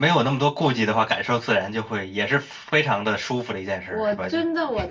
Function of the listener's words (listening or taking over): taking over